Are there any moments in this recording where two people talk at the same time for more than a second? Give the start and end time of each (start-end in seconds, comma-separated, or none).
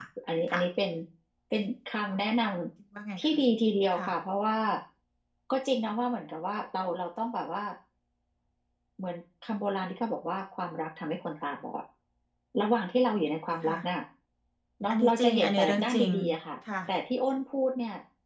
14.9-16.1